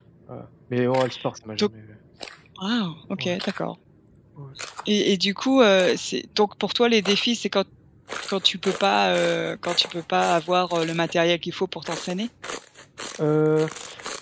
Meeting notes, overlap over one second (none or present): none